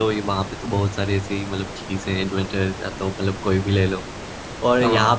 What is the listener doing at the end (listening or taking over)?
listening